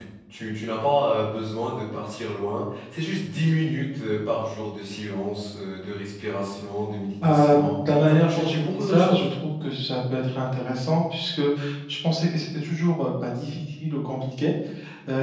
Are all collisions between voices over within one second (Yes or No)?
No